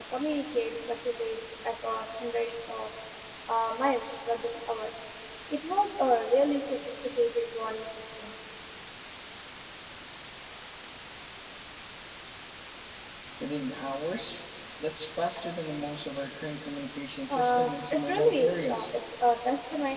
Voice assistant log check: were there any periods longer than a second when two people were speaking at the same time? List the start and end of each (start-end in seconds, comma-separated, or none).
17.3-18.9